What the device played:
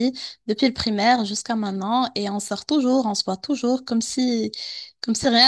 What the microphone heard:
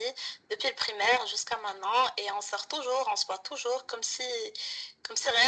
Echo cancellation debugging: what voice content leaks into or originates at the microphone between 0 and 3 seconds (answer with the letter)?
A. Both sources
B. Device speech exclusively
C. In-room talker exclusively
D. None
B